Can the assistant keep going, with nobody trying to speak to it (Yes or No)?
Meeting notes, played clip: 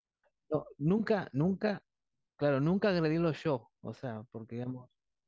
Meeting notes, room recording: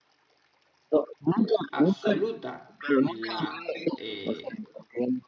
No